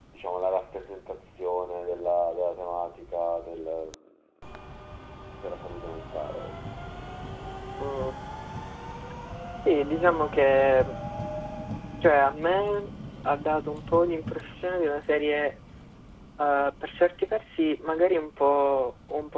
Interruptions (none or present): none